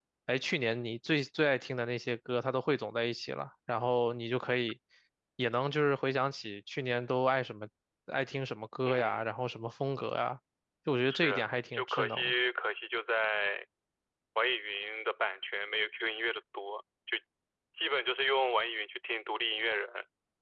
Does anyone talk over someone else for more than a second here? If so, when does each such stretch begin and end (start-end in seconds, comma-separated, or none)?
11.1-12.3